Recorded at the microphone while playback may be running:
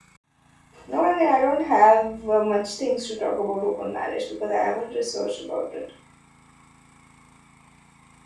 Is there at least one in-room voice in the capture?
Yes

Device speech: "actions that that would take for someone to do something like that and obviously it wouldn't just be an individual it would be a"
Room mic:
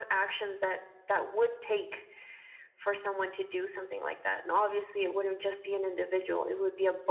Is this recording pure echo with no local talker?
Yes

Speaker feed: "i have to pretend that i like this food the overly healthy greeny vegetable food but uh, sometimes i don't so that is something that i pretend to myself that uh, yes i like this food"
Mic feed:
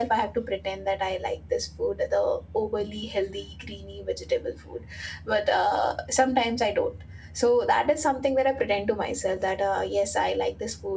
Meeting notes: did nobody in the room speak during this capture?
Yes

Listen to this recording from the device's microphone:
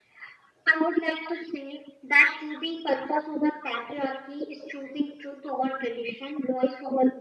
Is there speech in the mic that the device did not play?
No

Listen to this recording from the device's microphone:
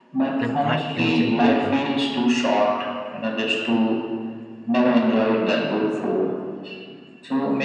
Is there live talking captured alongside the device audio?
Yes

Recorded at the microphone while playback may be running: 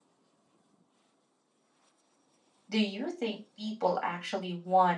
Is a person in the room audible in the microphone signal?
Yes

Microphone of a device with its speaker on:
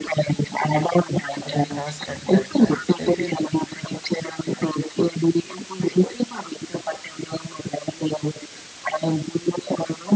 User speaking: Yes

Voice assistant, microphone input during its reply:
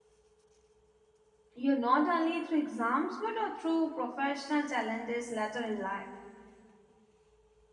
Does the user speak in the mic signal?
Yes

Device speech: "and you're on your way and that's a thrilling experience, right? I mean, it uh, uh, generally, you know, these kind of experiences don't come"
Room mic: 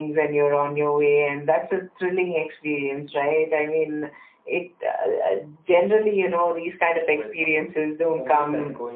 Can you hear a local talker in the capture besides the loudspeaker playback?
Yes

